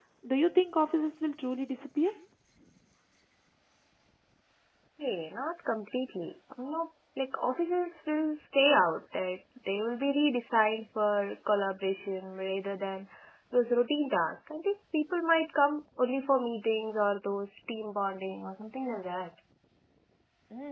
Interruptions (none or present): none